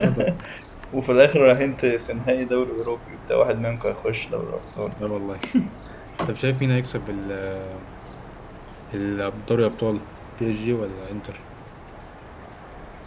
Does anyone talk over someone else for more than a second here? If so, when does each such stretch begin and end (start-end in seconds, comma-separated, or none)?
none